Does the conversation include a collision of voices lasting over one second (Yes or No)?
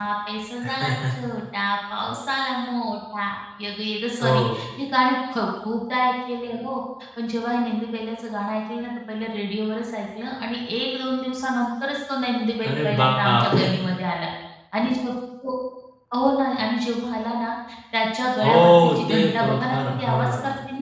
Yes